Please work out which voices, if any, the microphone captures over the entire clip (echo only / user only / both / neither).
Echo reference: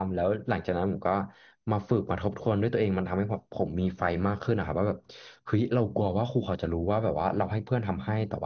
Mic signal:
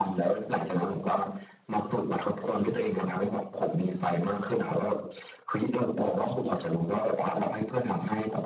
echo only